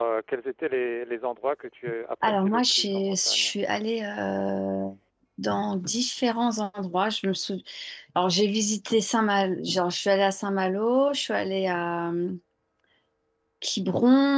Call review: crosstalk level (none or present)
present